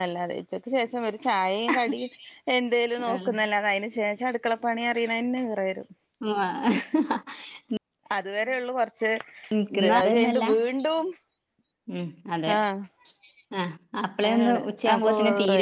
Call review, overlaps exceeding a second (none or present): present